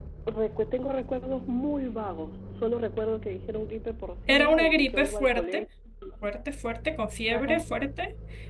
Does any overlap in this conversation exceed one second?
Yes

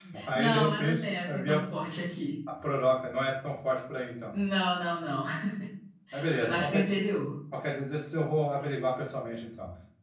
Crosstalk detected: Yes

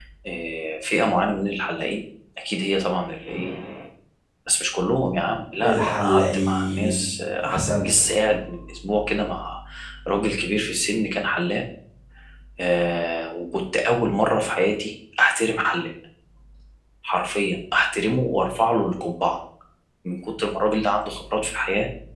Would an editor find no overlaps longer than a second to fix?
No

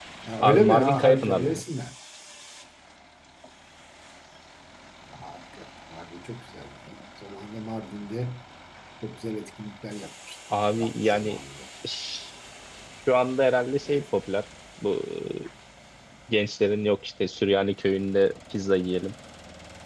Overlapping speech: Yes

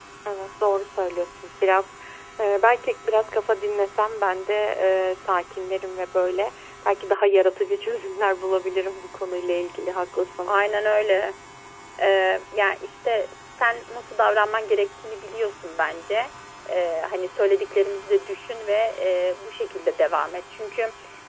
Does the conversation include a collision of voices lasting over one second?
No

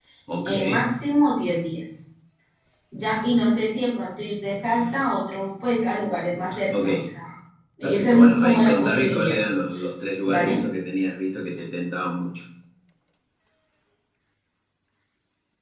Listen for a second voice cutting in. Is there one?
Yes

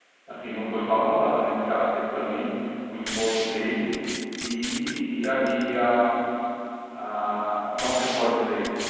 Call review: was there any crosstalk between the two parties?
No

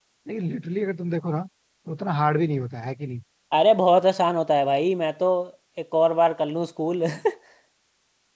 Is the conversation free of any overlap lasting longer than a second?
Yes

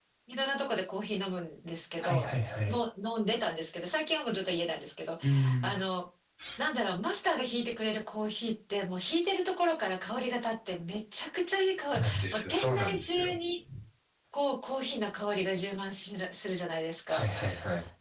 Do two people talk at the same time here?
Yes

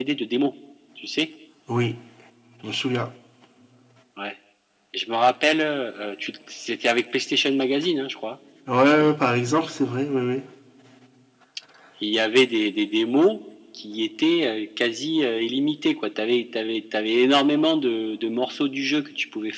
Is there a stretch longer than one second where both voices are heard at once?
No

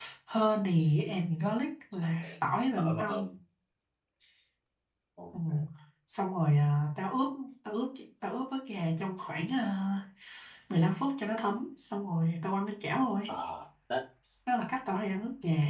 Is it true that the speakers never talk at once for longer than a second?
Yes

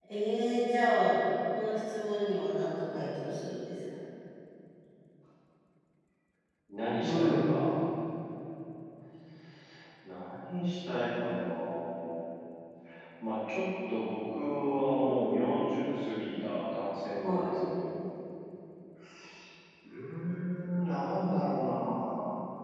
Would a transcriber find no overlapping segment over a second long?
Yes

